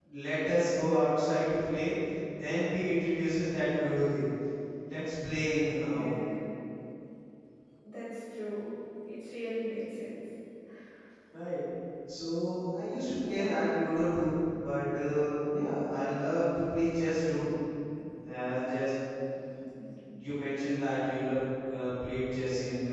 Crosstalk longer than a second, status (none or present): none